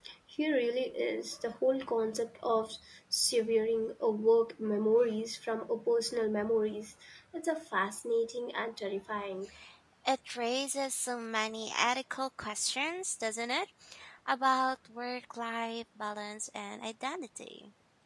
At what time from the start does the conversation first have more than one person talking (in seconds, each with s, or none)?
none